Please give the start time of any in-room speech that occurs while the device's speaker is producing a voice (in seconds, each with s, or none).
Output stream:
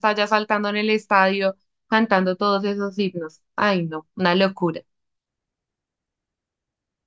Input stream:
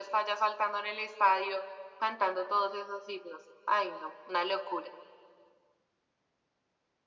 none